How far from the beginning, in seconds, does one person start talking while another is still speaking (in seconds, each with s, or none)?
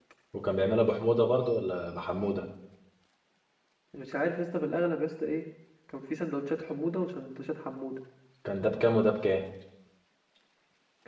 none